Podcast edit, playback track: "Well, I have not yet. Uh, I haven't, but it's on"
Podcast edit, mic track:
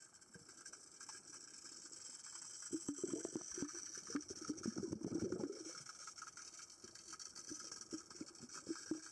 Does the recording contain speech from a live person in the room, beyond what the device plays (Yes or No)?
No